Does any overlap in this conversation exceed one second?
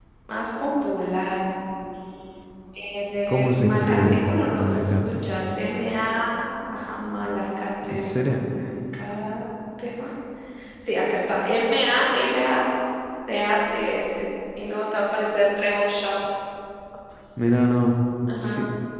Yes, from 3.3 s

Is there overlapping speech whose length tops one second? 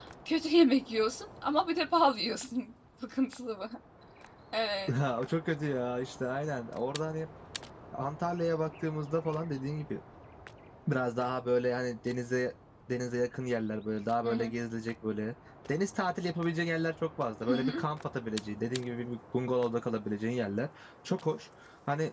No

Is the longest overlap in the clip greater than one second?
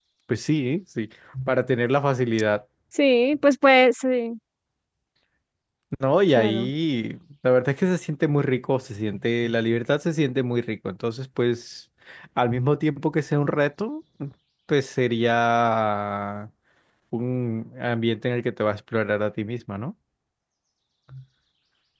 No

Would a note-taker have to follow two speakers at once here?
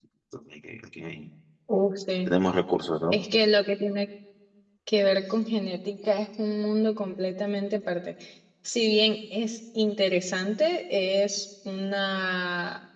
No

